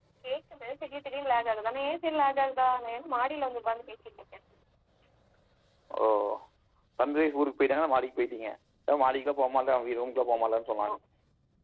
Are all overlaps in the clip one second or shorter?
Yes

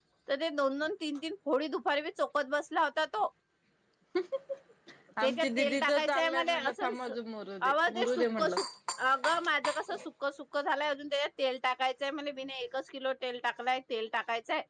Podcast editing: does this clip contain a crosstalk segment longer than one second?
Yes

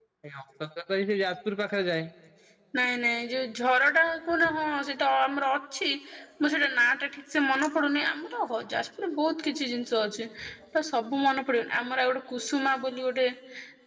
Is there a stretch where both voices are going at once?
No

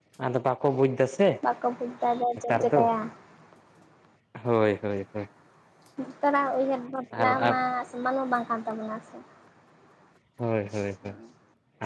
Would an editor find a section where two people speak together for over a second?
No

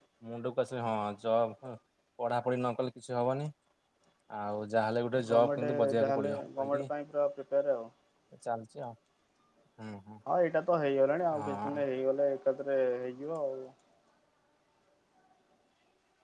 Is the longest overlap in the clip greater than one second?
Yes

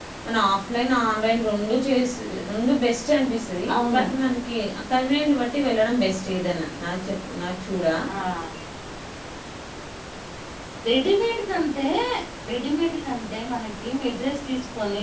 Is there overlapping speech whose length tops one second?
No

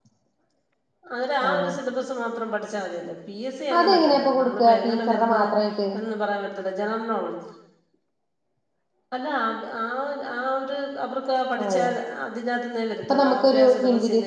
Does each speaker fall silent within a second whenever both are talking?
No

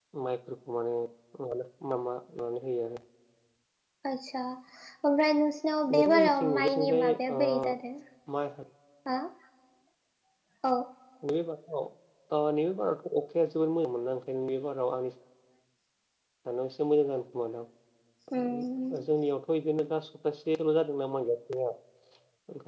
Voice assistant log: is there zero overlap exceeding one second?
No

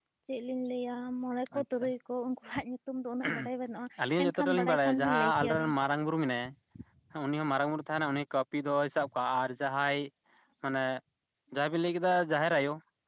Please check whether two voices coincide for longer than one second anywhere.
Yes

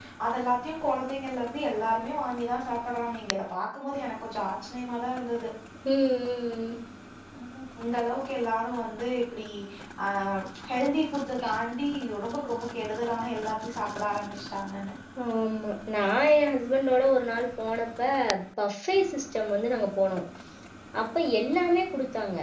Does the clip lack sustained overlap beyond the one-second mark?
Yes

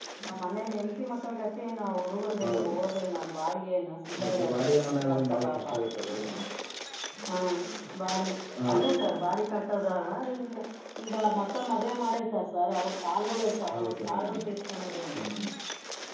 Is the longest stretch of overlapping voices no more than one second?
No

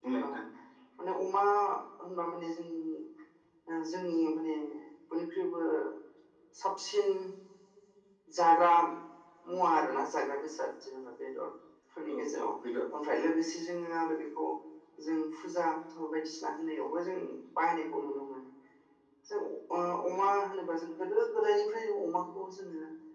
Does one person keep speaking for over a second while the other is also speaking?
No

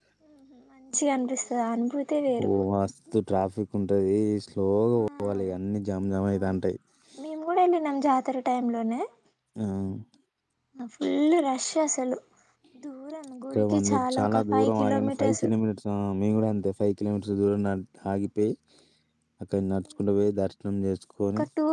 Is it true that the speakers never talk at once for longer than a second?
No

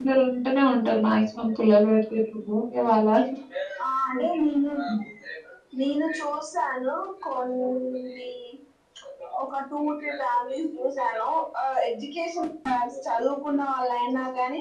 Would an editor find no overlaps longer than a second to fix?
Yes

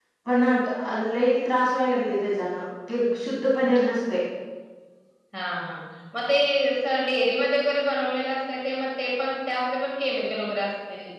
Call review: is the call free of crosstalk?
Yes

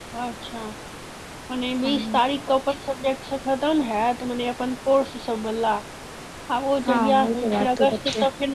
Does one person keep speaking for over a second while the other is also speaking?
Yes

